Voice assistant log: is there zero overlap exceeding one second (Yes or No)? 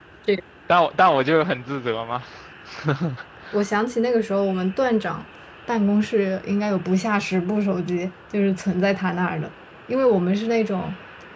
Yes